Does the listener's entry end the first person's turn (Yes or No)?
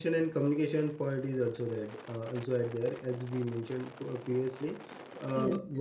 No